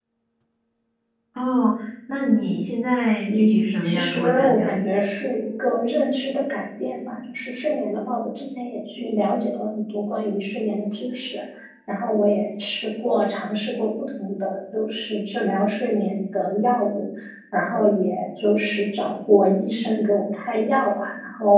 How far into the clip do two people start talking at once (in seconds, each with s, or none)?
3.3 s